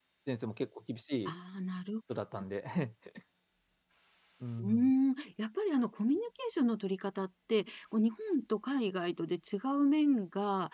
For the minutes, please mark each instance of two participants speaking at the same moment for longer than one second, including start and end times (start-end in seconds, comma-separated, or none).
none